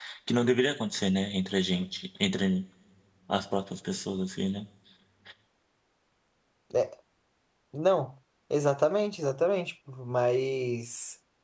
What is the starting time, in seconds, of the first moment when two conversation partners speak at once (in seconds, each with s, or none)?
none